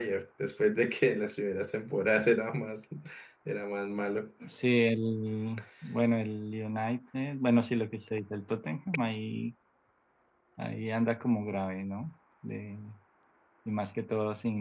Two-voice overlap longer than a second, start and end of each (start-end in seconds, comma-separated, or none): none